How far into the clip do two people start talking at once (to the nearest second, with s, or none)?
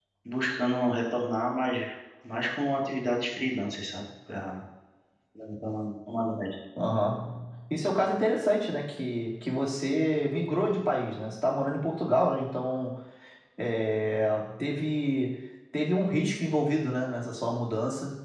none